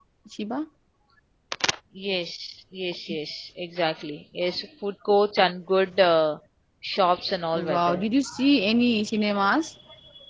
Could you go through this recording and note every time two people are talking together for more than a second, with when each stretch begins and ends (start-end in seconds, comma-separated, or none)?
none